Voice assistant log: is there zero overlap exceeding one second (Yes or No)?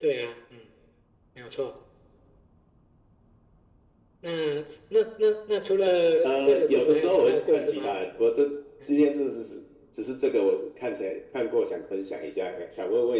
No